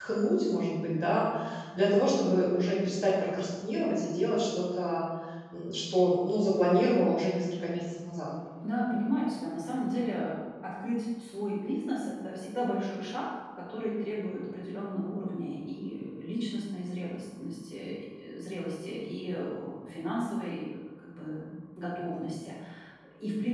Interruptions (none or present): none